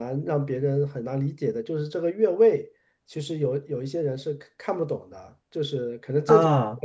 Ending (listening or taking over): listening